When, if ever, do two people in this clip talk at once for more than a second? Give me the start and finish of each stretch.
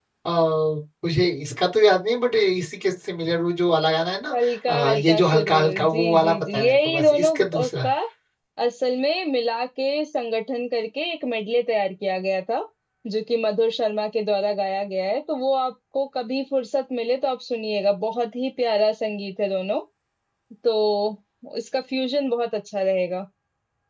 4.3-7.9

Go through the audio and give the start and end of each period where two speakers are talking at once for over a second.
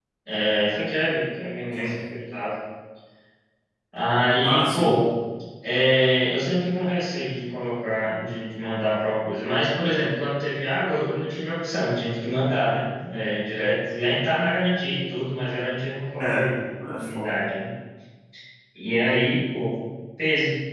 none

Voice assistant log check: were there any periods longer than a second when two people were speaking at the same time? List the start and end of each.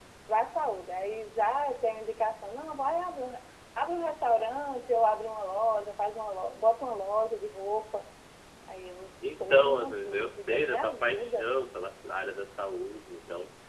9.5-11.5

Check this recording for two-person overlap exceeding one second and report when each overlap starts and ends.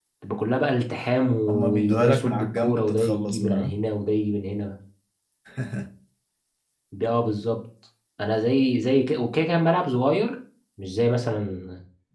1.5-3.7

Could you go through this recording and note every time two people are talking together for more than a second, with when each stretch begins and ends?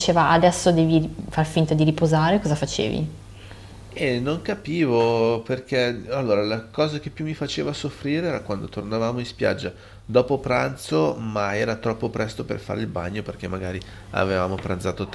none

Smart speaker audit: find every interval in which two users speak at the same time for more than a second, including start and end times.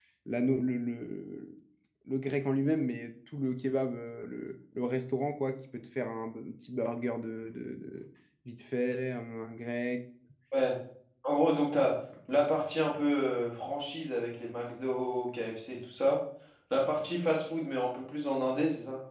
none

